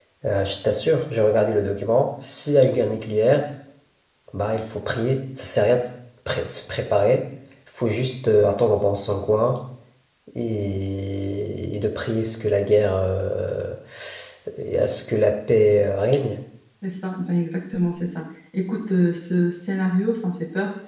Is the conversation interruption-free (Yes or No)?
Yes